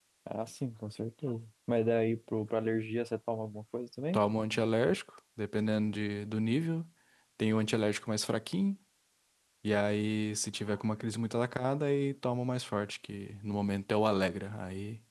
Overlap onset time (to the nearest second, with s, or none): none